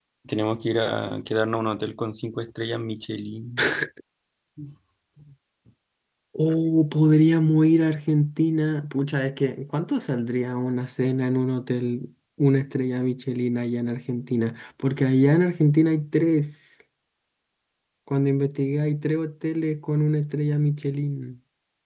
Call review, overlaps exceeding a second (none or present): none